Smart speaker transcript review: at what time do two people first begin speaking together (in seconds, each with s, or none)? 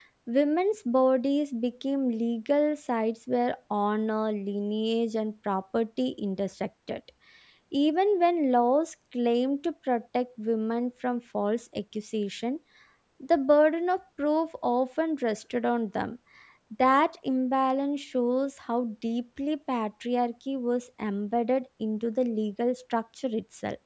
none